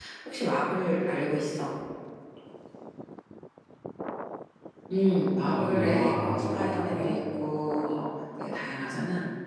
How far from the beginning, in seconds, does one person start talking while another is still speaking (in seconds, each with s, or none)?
5.4 s